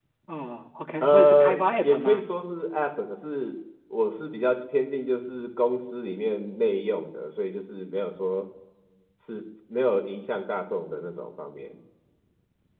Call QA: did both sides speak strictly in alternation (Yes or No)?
No